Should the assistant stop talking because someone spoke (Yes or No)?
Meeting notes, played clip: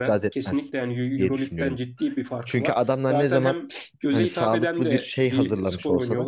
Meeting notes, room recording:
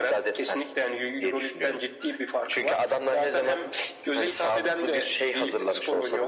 No